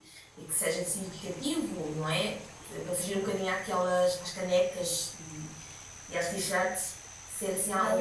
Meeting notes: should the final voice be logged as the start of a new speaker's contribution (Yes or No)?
Yes